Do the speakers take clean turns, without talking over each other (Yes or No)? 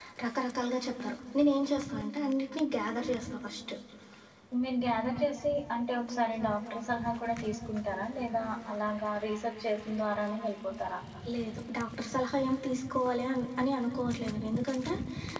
Yes